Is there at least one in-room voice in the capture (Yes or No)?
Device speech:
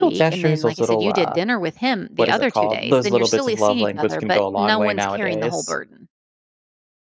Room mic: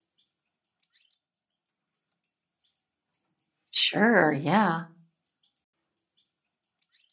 Yes